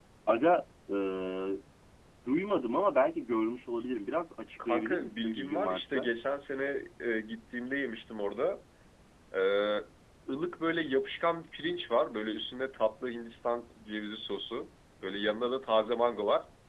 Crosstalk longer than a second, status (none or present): present